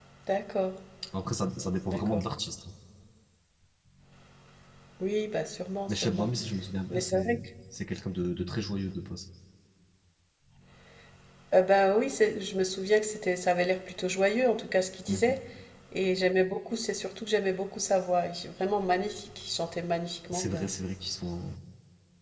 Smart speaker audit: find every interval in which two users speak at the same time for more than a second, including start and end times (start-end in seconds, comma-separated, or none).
none